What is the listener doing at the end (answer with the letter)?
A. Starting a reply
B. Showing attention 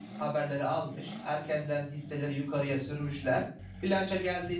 B